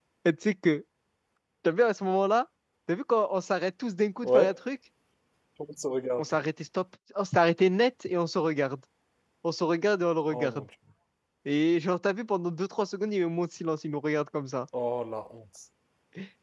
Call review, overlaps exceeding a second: none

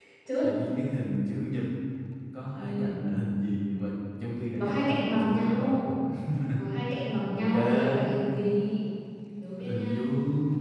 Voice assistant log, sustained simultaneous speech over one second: present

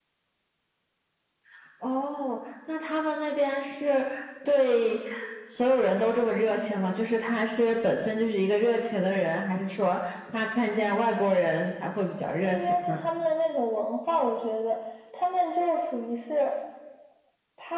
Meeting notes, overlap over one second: none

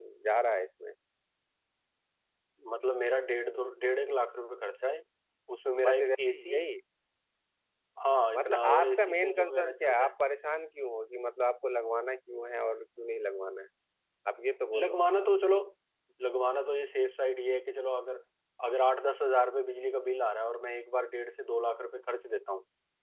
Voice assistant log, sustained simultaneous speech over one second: present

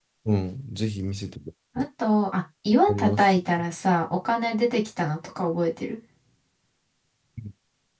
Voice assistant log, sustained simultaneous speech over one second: none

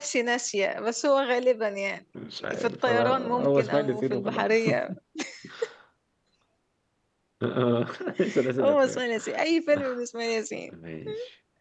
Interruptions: present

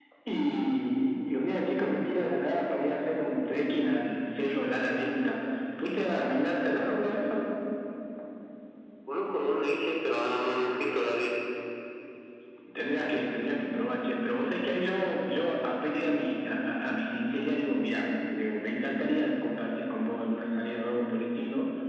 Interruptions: none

